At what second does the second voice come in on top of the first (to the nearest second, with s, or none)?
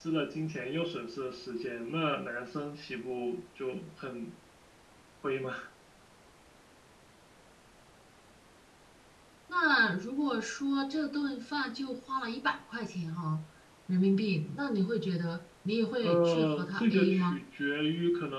16 s